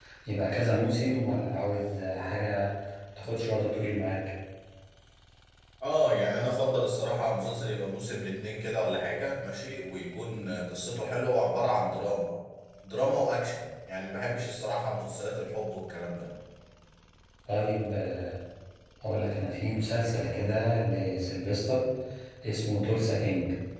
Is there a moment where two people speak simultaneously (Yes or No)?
No